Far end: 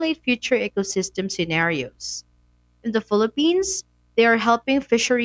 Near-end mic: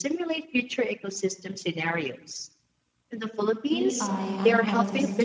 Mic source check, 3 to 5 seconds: both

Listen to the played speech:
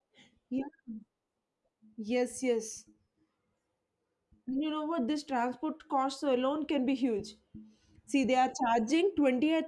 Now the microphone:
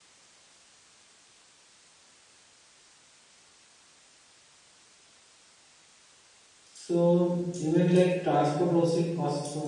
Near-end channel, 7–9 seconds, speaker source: user only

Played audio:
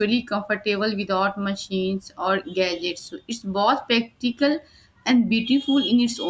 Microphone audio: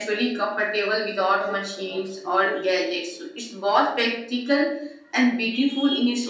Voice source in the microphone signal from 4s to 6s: echo only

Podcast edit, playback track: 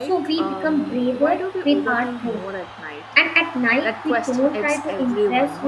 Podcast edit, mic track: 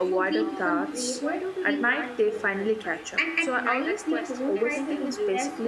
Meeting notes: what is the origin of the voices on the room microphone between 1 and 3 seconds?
both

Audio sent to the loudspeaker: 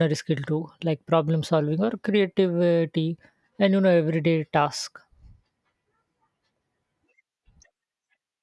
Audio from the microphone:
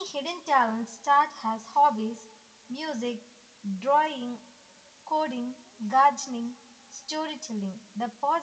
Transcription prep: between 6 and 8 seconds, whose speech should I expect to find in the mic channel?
user only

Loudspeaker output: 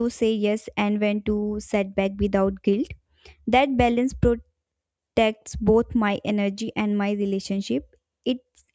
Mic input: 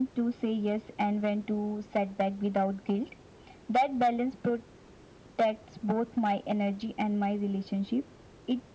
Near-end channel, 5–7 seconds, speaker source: echo only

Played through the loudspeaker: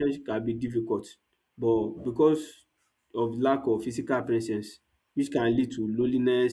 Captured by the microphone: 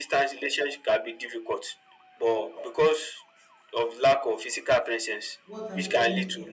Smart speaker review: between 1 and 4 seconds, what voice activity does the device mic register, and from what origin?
echo only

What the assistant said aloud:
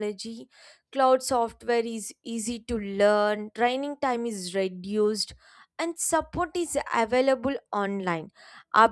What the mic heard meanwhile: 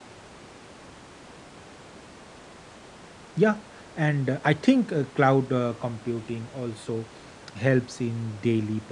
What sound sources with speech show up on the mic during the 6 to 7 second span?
user only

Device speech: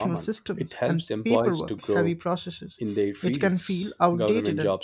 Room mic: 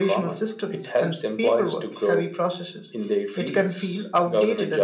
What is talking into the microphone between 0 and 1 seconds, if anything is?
echo only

